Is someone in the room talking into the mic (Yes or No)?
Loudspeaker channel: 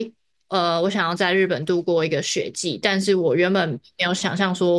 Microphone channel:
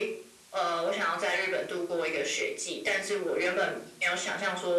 No